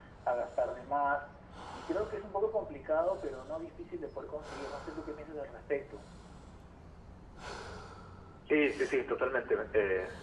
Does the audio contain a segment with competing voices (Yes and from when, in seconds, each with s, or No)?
No